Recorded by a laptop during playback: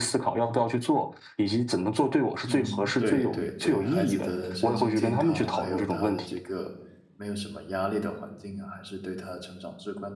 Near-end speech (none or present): present